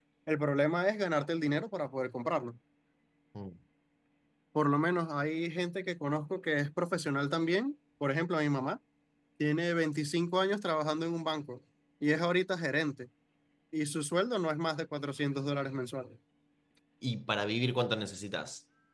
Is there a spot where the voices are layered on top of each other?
No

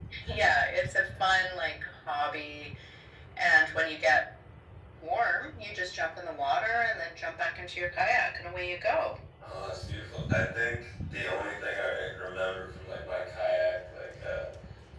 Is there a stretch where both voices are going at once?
No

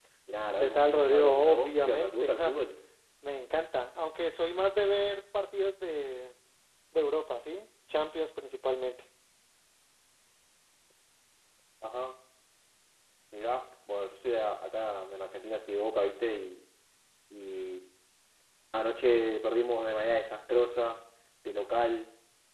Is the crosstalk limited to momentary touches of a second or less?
No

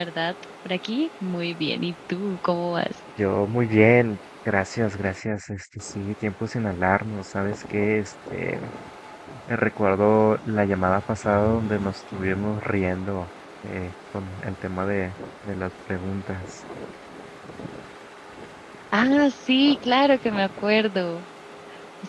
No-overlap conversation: Yes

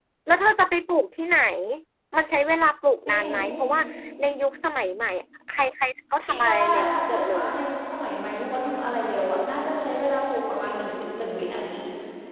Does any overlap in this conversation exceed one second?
Yes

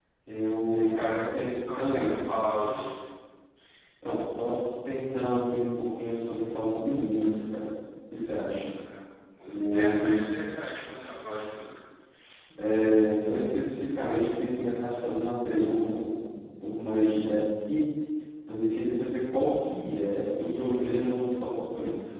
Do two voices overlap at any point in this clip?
Yes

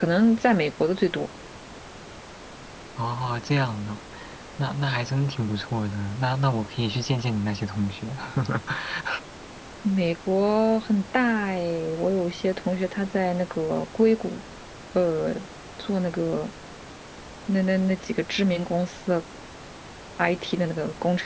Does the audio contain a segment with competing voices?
No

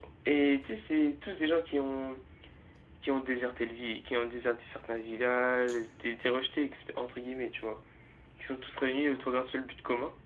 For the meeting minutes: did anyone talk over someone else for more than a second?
No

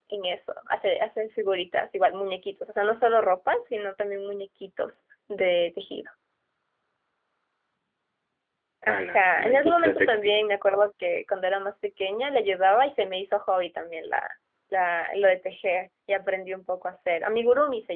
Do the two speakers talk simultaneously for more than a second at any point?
Yes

